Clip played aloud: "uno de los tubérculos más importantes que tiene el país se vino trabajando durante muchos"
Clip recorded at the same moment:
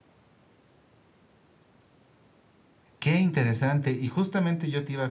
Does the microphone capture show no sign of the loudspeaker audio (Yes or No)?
Yes